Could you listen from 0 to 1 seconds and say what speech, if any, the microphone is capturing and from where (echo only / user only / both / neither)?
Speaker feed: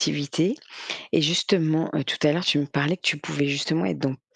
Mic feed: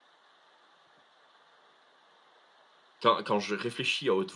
neither